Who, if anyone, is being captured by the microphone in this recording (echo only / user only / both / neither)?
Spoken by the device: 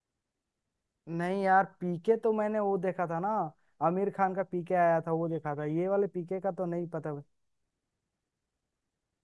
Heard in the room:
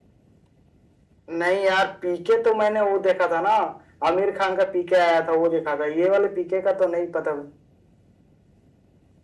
echo only